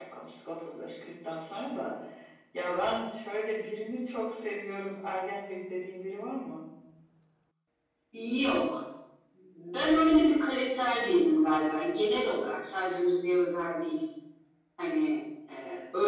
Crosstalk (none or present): none